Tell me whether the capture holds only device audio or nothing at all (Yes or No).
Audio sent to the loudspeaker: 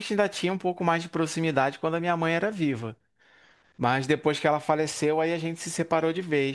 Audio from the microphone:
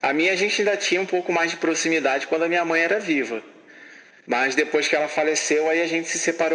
Yes